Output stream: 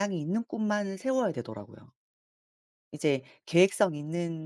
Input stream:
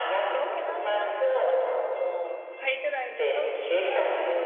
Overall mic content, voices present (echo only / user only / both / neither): both